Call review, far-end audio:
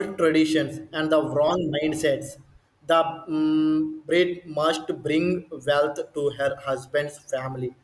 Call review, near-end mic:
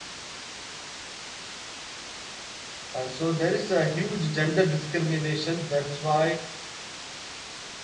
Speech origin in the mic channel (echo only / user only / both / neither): user only